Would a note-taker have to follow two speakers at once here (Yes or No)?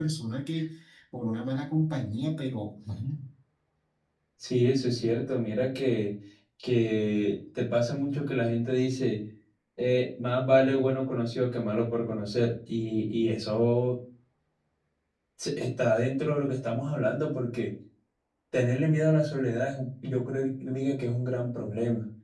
No